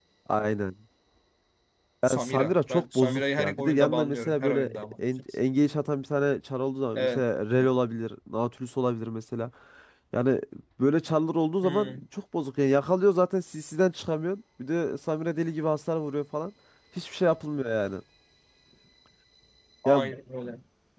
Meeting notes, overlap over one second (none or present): present